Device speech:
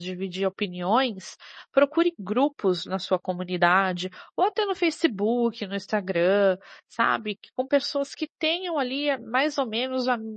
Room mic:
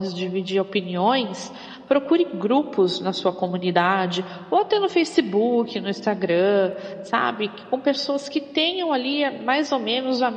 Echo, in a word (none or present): present